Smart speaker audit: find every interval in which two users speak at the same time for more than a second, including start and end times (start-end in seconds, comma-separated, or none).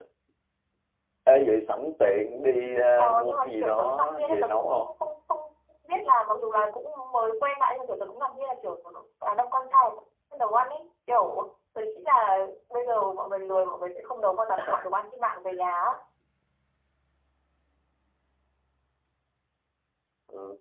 3.0-4.9